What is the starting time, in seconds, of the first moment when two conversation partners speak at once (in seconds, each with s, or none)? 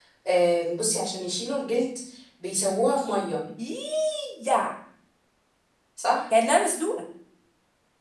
none